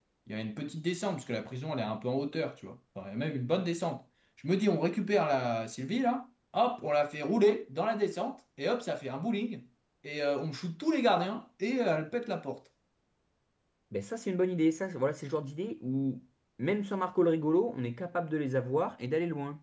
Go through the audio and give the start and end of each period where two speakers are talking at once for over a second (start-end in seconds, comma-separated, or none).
none